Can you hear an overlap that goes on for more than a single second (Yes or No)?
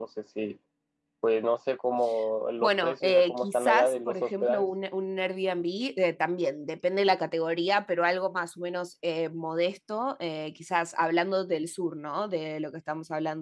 Yes